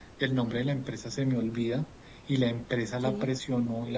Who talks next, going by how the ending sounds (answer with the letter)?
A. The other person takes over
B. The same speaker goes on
B